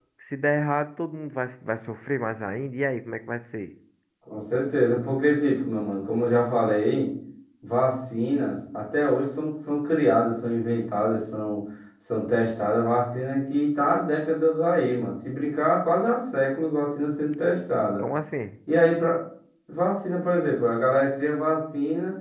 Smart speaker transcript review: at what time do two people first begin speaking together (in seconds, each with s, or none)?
none